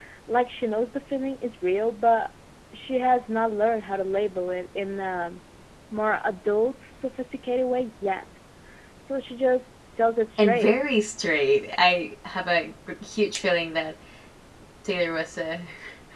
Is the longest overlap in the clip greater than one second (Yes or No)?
No